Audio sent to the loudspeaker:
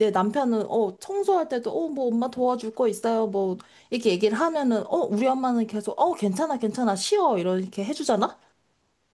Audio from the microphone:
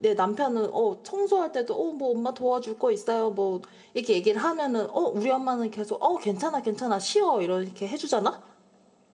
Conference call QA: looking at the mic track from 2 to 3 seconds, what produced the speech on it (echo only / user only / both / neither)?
echo only